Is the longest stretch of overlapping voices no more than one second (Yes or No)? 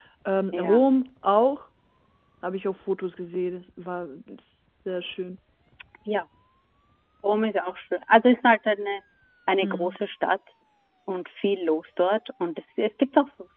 Yes